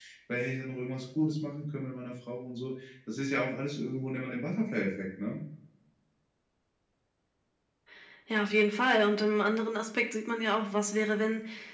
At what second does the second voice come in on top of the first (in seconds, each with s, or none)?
none